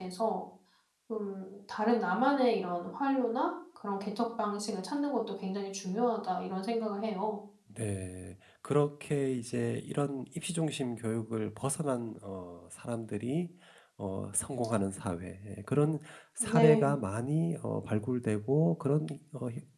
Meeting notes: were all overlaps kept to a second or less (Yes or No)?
Yes